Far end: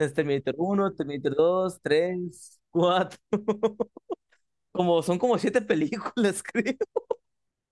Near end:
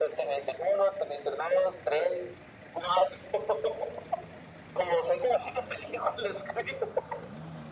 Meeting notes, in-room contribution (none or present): none